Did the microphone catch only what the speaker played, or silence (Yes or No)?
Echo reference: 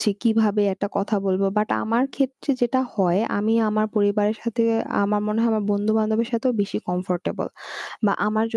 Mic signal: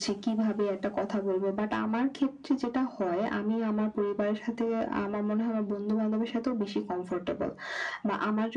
Yes